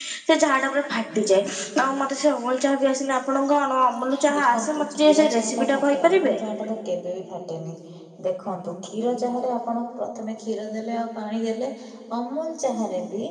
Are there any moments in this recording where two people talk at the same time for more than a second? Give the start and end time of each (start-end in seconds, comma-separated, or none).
4.3-6.4